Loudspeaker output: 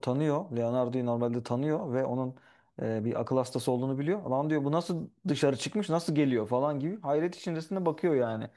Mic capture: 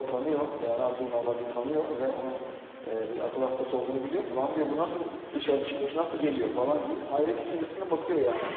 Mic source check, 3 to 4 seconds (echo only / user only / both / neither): echo only